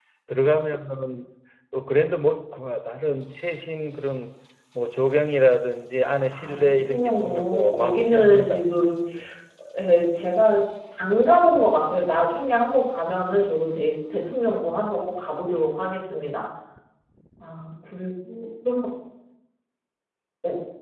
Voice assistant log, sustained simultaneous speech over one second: present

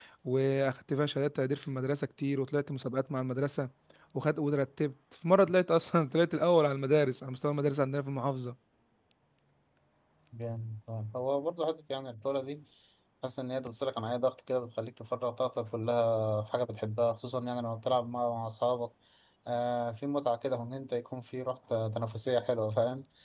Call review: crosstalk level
none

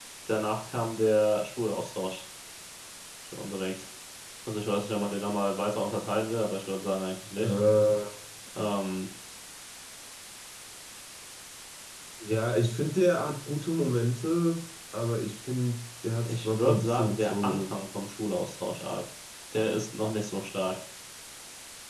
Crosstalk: present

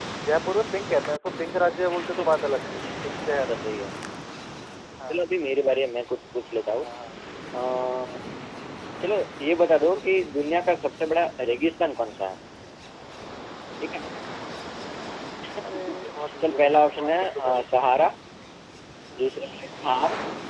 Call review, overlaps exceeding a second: present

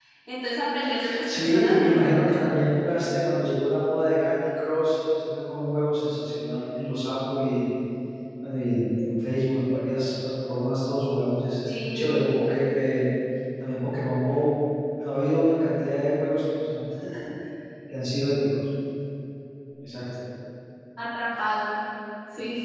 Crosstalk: present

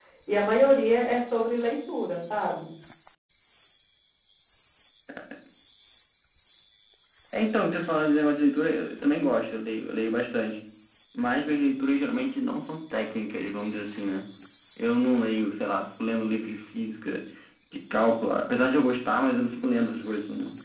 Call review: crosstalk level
none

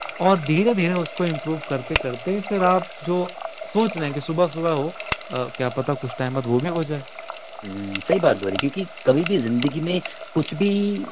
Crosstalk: none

